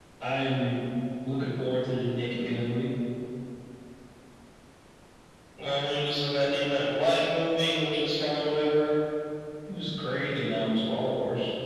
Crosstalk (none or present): none